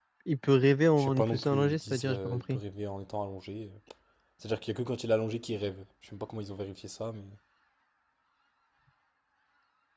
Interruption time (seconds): 1.0 s

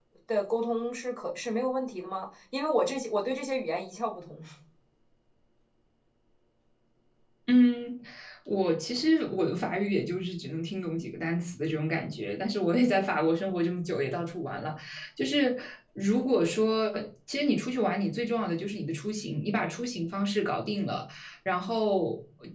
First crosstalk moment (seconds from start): none

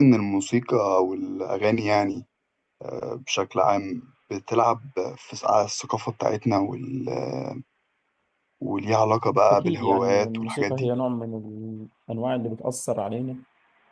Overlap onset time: 9.5 s

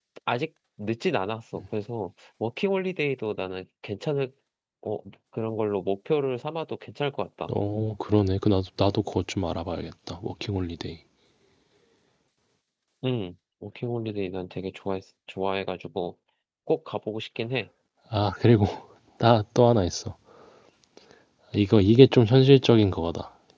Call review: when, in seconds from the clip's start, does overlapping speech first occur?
none

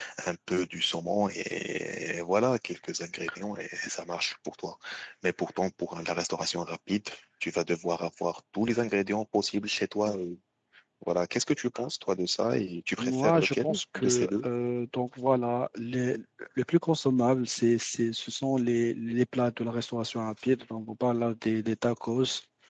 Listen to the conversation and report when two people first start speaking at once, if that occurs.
13.0 s

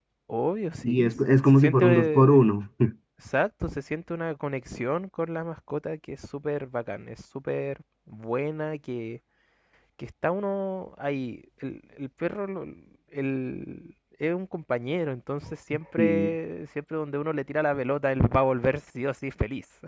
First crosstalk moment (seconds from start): 0.8 s

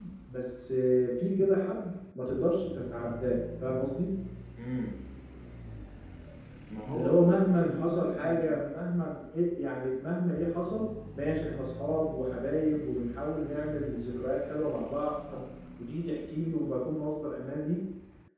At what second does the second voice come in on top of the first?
6.9 s

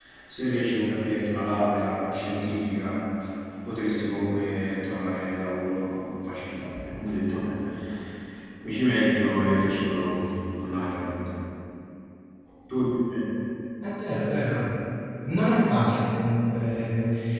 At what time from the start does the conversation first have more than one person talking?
none

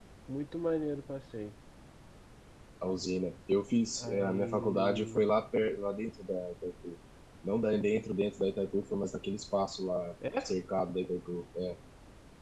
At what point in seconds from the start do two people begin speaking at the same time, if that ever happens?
4.0 s

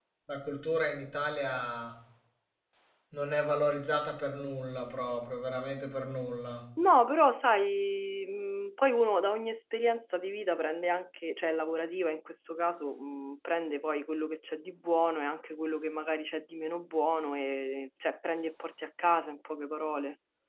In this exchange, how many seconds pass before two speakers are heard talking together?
none

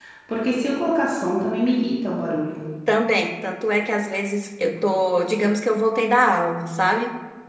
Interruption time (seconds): none

